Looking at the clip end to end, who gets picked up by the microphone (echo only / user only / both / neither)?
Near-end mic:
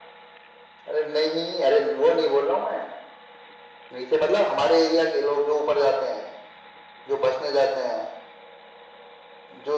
echo only